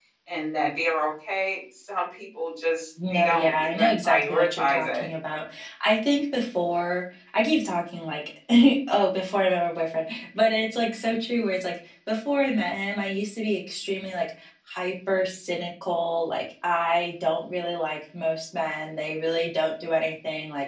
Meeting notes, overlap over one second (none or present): present